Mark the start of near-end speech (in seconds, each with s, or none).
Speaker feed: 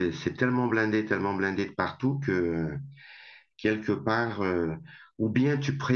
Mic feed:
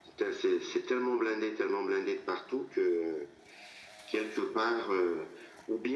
none